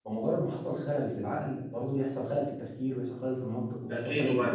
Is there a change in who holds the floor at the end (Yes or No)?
Yes